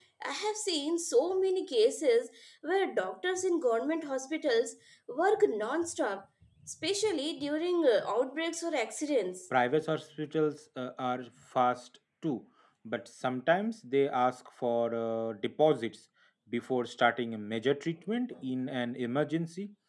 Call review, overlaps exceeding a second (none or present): none